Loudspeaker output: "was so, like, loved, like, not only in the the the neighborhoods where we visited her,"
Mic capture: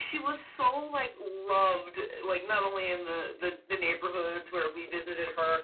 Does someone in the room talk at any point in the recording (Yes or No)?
No